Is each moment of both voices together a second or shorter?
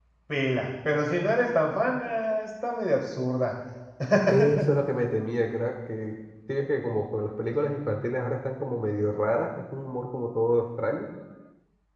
Yes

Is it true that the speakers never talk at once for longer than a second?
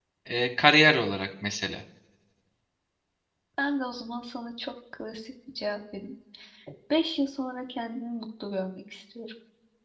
Yes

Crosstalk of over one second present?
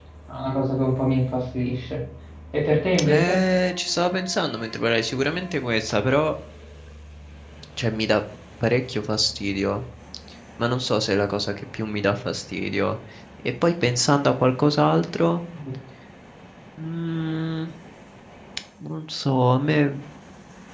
No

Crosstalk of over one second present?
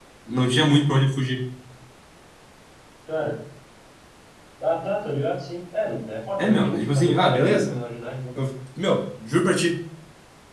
Yes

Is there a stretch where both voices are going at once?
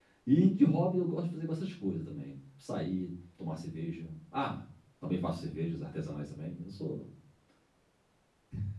No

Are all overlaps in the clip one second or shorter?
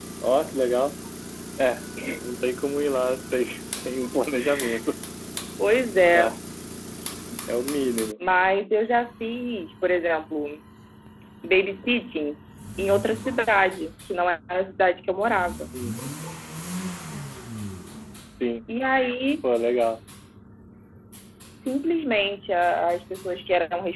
Yes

